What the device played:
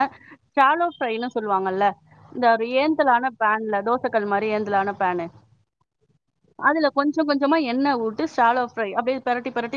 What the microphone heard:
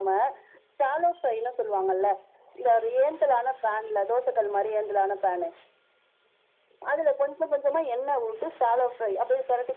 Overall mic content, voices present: echo only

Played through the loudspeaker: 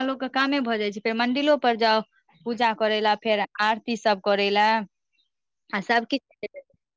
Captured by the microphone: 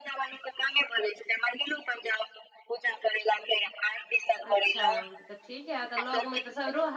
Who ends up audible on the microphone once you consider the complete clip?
both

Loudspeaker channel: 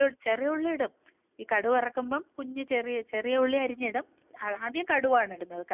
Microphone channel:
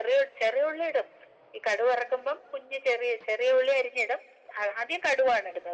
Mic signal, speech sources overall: echo only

